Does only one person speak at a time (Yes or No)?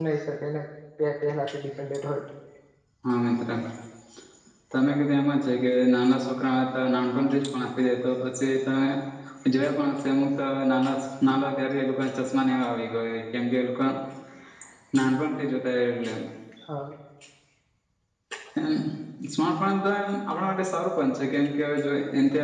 Yes